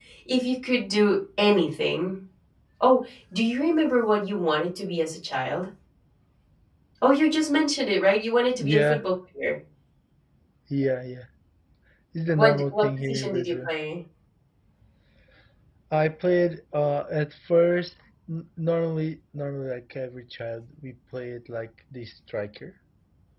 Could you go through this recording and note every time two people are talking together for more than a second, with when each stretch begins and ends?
12.4-13.7

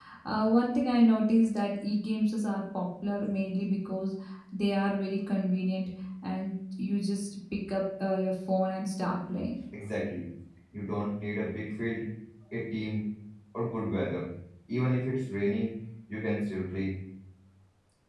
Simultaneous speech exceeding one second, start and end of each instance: none

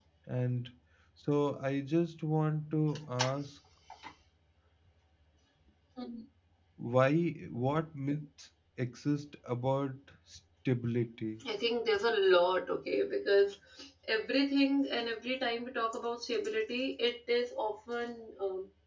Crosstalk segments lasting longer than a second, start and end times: none

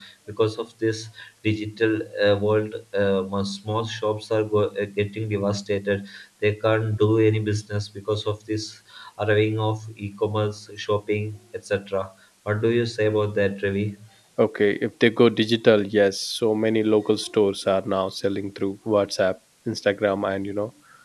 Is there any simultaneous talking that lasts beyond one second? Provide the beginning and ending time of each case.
none

